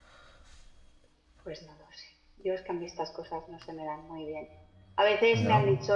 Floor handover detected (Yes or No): No